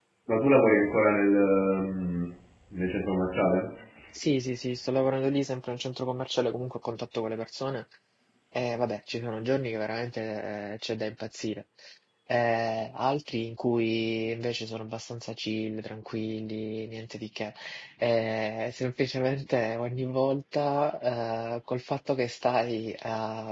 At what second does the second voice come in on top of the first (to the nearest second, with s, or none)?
none